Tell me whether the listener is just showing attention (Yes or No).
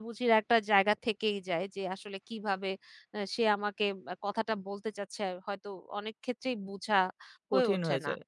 No